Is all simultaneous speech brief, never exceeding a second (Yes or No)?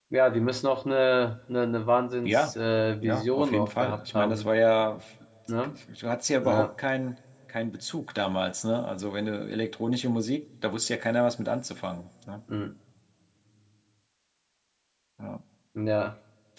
No